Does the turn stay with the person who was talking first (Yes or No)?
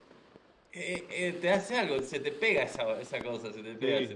No